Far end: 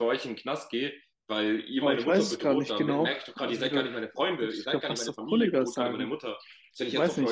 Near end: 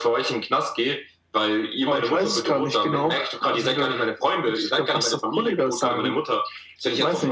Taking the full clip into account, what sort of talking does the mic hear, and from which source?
echo only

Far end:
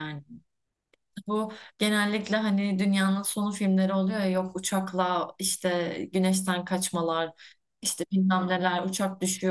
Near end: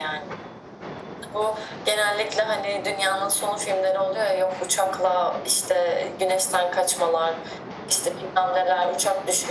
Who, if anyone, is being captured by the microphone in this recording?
echo only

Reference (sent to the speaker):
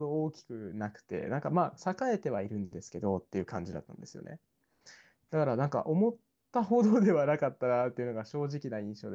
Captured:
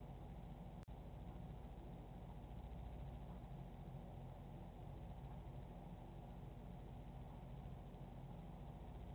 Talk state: neither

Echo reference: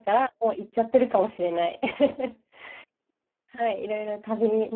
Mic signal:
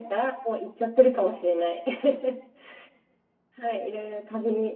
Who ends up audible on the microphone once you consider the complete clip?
echo only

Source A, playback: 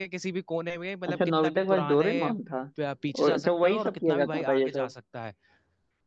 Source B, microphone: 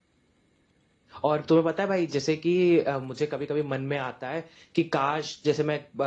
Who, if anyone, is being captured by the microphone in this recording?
user only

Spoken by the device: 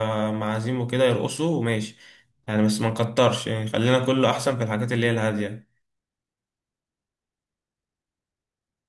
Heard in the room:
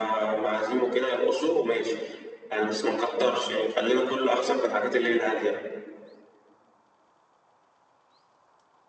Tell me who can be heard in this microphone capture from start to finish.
echo only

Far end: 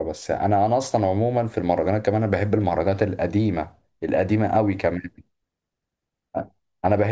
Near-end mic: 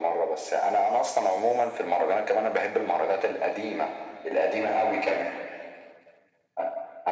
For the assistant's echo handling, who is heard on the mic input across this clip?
echo only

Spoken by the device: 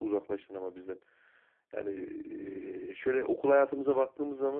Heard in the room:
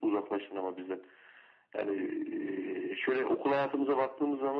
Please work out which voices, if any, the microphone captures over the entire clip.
echo only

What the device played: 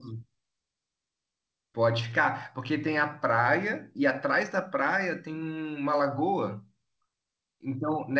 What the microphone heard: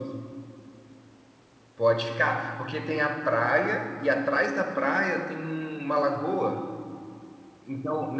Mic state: echo only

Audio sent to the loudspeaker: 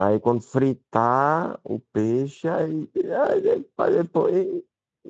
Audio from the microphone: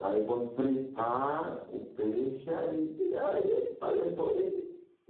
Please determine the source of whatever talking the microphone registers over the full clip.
echo only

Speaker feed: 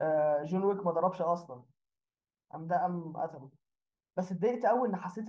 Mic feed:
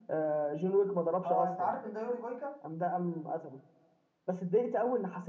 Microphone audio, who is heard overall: both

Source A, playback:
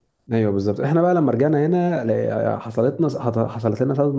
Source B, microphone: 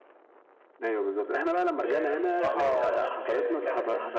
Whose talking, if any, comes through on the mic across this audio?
both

